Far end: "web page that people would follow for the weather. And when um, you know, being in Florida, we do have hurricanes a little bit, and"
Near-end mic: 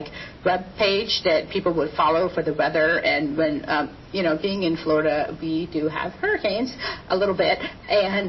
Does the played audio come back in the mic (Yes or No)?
Yes